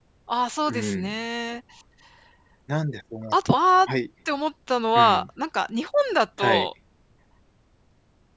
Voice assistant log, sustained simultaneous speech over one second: none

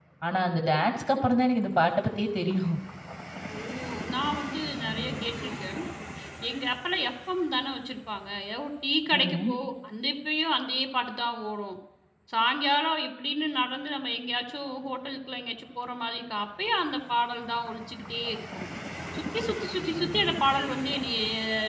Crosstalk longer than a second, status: none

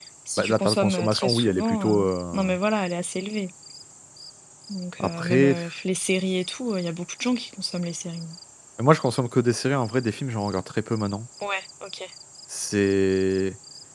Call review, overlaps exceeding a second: present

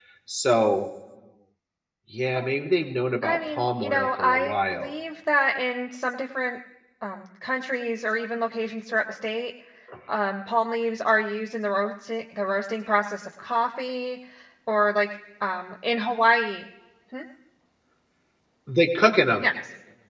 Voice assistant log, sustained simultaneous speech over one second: present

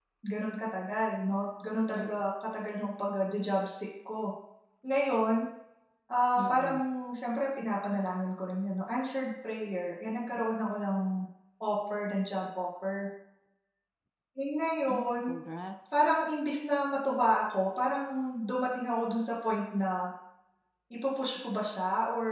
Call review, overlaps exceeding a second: none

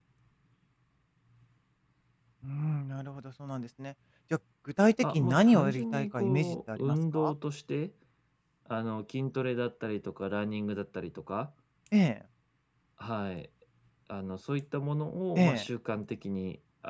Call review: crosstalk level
present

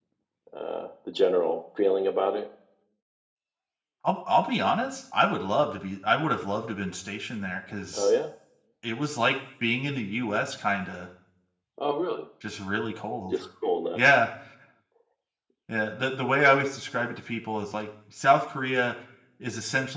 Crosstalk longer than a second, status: none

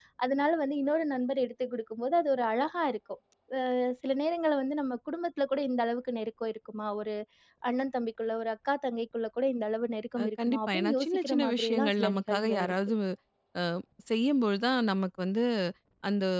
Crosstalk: present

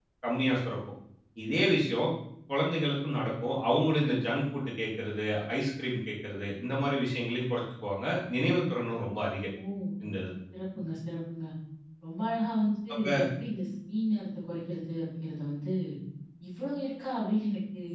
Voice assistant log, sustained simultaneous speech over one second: none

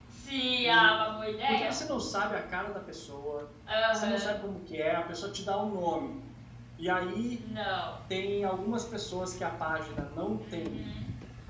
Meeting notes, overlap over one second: none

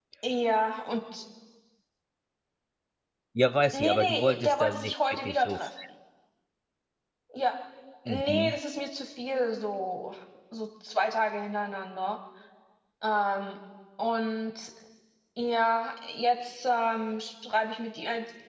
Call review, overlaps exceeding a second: present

